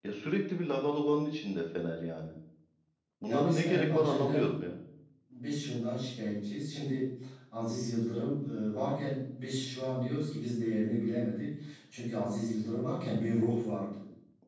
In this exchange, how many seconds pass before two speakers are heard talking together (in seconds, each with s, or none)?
3.2 s